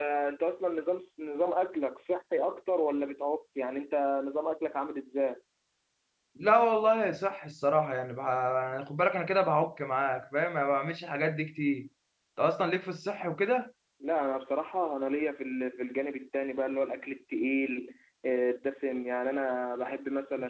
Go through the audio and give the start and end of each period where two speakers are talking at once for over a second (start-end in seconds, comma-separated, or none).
none